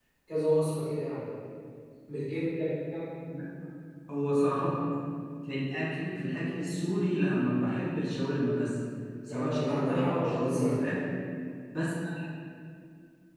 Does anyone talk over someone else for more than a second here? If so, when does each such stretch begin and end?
9.3-10.8

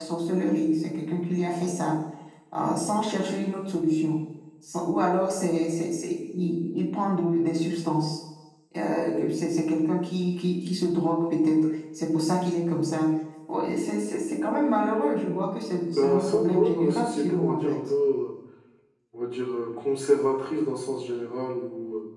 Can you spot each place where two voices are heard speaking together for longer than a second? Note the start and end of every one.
15.9-17.8

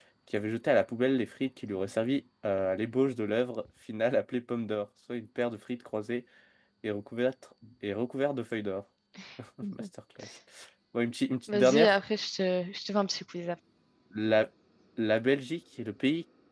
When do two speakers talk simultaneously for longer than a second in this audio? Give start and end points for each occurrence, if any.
none

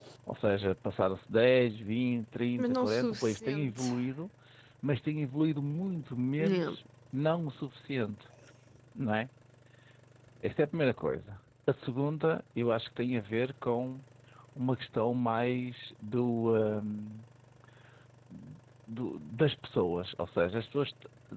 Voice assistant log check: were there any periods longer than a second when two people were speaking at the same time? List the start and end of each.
2.6-3.9

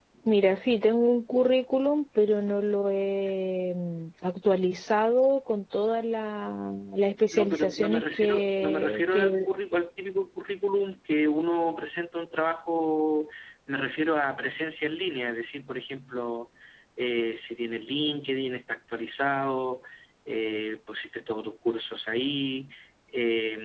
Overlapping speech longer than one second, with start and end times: 7.3-9.5

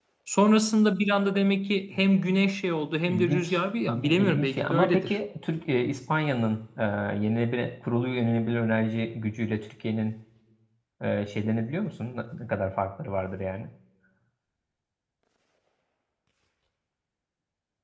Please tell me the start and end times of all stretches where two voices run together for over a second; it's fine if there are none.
3.1-5.2

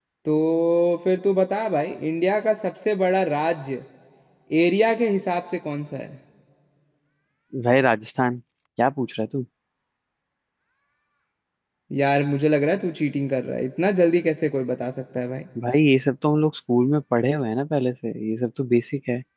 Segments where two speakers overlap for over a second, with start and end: none

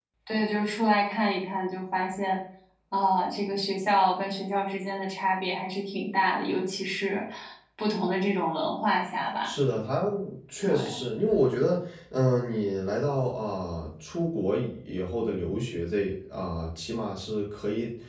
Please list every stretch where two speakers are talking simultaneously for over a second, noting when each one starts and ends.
none

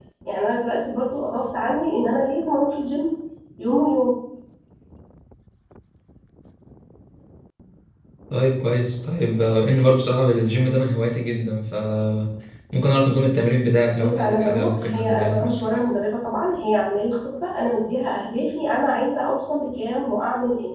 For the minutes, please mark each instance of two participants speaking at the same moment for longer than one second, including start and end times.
13.9-15.6

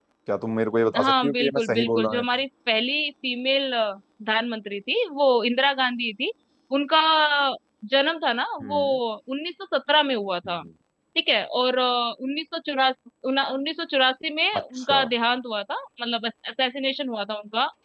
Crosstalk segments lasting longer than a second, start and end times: 1.0-2.2

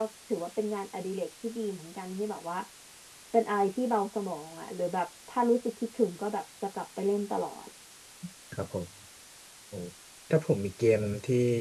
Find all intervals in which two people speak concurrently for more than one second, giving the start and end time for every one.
none

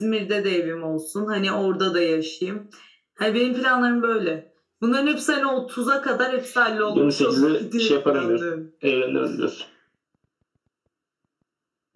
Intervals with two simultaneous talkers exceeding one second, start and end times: 6.9-8.4

